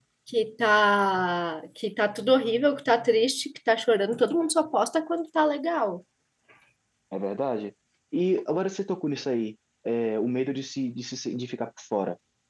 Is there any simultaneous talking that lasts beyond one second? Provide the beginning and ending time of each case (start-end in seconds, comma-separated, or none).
none